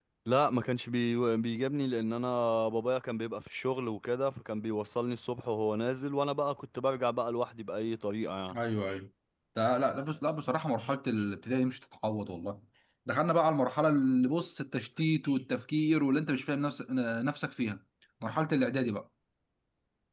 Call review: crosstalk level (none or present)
none